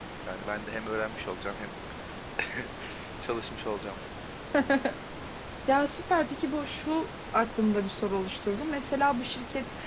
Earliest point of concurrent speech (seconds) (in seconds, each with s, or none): none